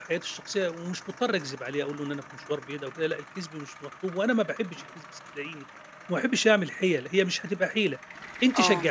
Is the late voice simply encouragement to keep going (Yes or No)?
Yes